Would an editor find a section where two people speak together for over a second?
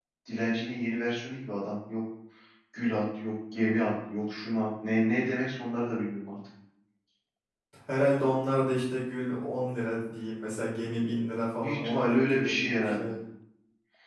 Yes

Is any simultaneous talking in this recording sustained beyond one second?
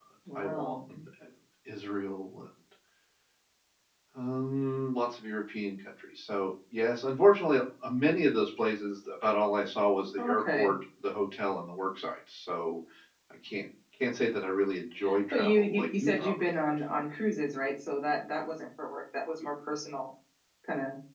Yes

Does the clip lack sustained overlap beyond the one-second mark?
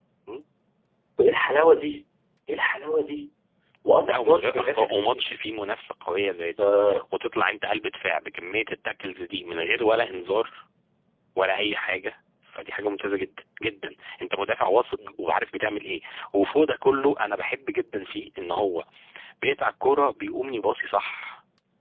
No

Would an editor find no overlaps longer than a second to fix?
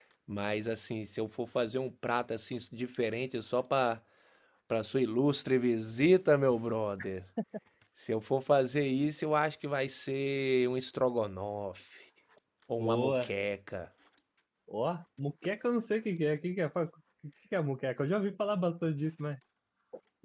Yes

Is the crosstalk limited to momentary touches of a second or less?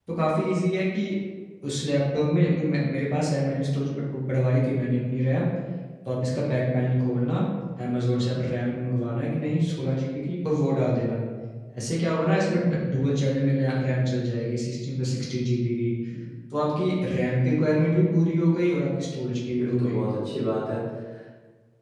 Yes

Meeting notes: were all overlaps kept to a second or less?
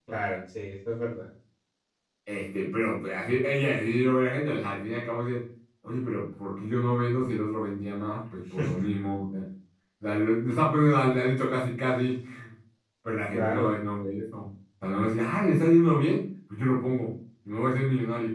Yes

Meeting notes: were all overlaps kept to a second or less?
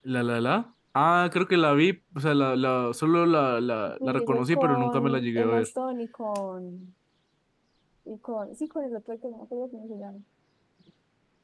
No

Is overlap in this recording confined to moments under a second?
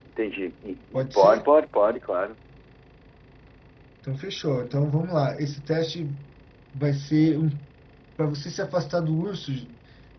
Yes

